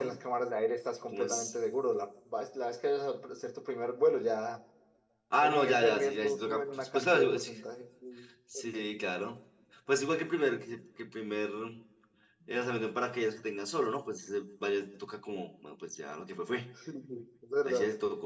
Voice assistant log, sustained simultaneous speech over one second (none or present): present